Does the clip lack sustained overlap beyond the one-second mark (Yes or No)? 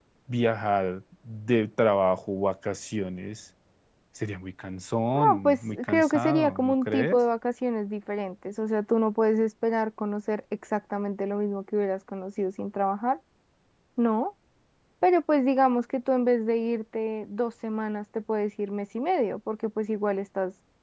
No